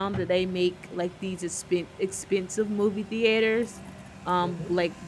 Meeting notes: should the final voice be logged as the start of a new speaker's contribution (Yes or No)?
No